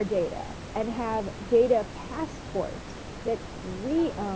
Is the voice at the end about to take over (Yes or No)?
No